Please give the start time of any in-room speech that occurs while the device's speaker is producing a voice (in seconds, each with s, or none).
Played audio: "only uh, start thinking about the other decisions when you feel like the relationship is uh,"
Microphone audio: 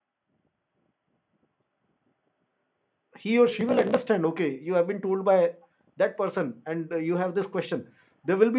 3.2 s